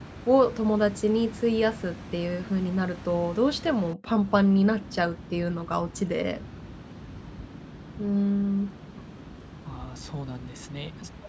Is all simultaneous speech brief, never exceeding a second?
Yes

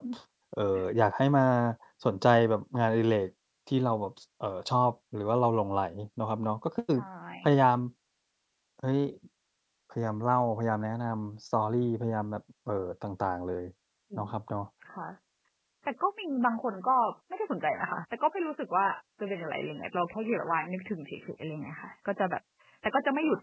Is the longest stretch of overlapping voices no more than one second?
Yes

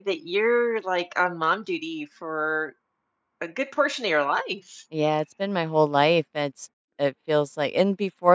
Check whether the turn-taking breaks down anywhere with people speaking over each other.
No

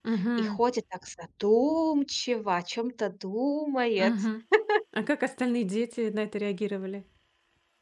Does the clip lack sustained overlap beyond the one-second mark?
Yes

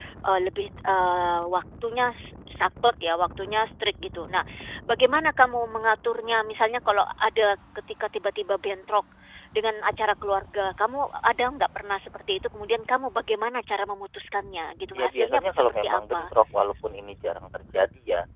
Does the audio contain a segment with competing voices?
Yes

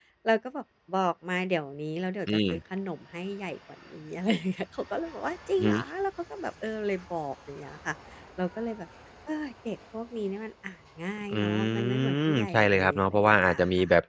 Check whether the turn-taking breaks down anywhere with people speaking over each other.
Yes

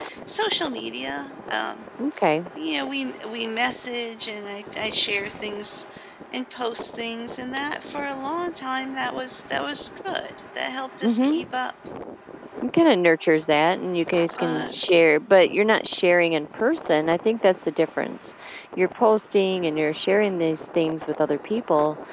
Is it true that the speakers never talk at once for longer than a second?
Yes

